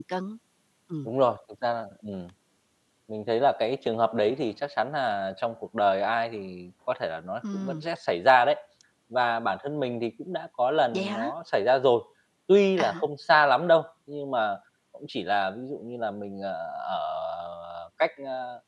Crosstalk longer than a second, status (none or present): none